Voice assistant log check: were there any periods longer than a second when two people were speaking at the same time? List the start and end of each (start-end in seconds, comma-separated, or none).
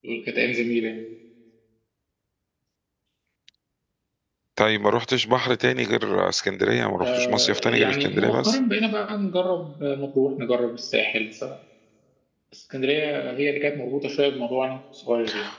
7.0-8.6